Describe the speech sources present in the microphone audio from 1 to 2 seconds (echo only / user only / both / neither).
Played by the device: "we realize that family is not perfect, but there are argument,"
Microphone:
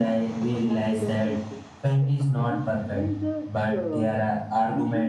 both